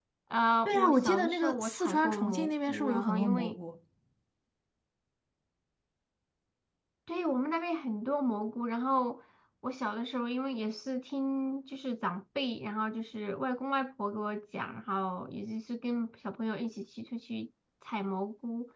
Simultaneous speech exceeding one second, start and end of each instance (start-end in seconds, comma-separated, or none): 0.7-3.6